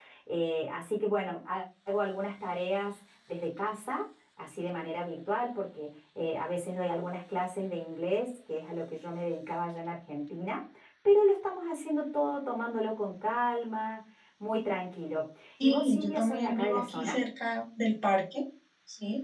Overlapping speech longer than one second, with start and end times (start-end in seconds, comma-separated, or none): 15.6-17.2